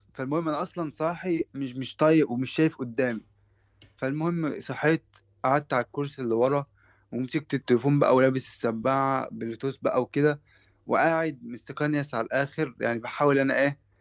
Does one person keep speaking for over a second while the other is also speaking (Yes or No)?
No